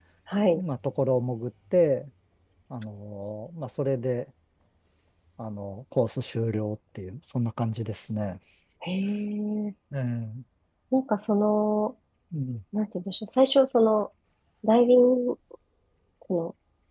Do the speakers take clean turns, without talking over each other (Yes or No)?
Yes